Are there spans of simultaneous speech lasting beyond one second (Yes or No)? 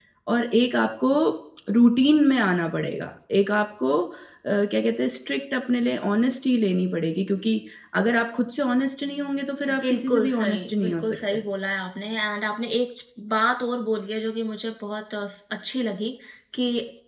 Yes